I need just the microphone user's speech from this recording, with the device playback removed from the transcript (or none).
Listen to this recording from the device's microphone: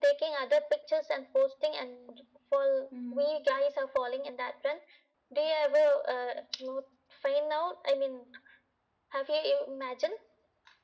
Mm-hmm.